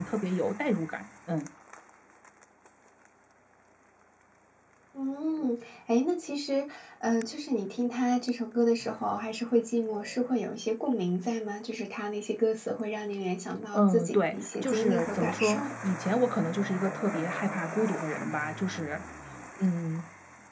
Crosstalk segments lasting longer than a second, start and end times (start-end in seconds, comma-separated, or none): 13.7-15.6